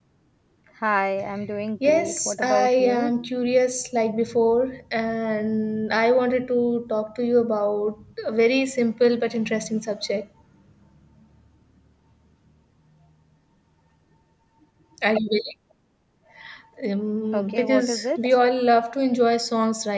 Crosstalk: present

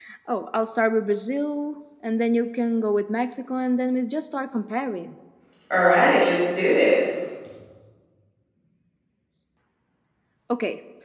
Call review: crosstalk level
none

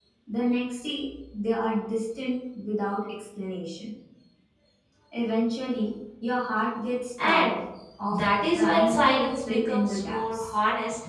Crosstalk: present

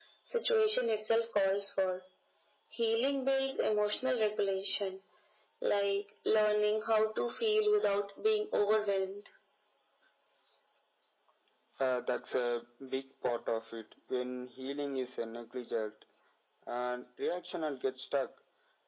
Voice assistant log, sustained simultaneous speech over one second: none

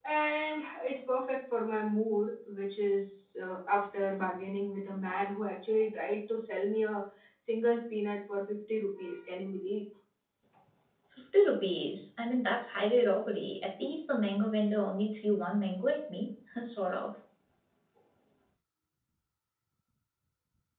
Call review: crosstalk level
none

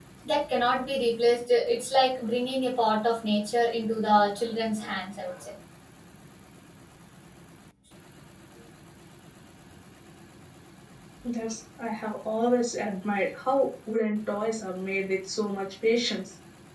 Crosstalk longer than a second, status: none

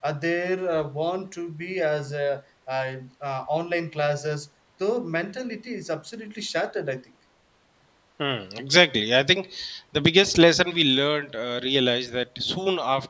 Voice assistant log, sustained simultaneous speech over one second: none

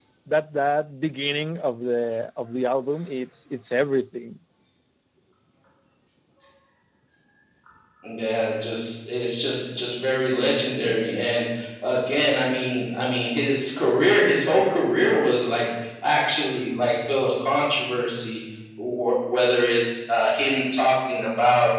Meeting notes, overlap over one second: none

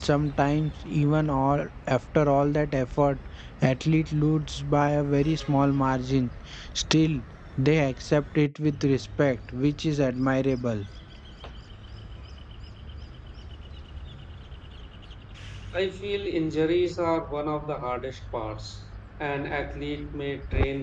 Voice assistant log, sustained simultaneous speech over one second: none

